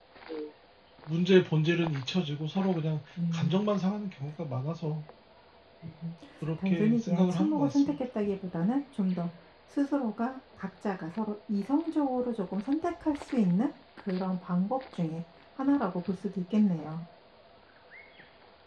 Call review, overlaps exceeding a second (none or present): present